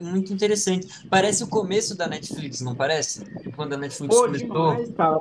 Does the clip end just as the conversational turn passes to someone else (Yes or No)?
Yes